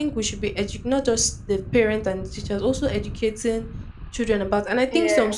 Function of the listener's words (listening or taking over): listening